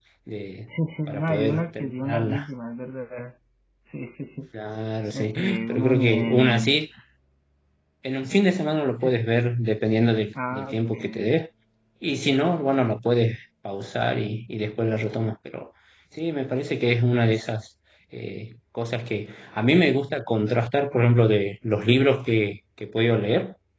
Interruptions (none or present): present